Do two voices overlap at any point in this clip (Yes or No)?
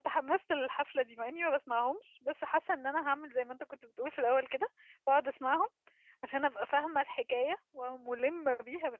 No